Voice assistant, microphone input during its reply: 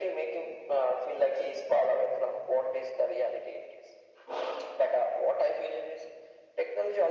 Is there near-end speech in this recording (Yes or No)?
No